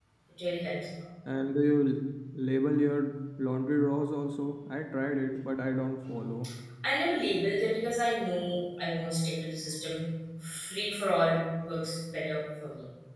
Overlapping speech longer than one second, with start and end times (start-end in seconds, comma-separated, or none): none